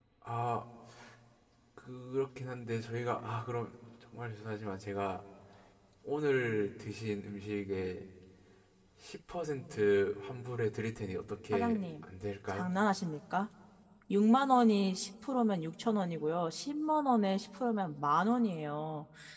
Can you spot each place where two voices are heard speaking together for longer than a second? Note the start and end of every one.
none

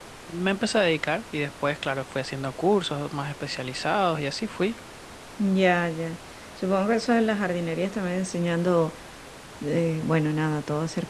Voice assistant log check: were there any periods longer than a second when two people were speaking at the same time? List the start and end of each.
none

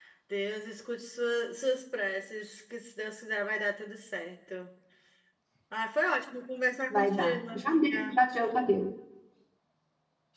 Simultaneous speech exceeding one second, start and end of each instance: 6.9-8.2

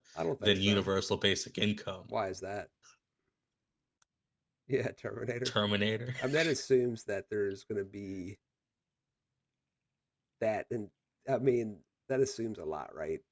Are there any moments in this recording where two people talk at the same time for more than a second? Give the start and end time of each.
none

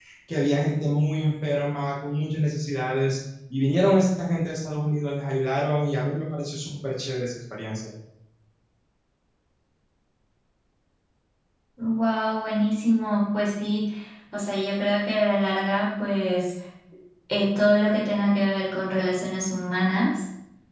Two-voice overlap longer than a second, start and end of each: none

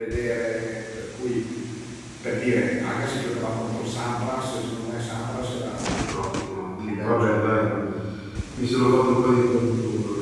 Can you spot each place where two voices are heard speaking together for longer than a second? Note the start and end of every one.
6.4-7.6

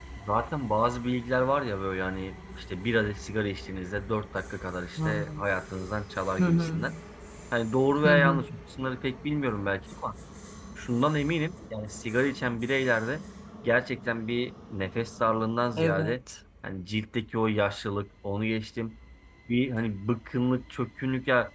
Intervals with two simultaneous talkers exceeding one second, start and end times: none

